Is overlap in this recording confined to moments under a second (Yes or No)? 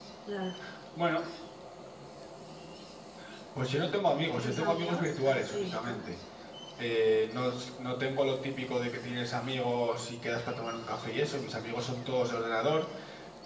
No